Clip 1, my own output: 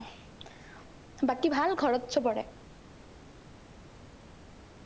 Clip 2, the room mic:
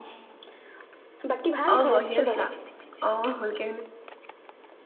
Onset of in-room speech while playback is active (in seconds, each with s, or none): 1.7 s